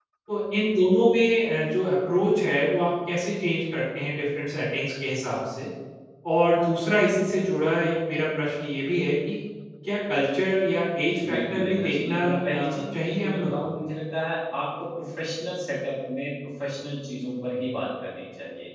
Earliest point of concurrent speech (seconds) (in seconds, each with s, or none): 11.2 s